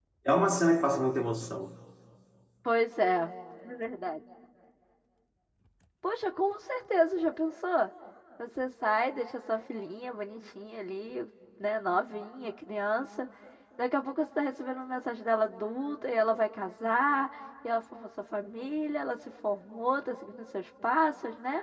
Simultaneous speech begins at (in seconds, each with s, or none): none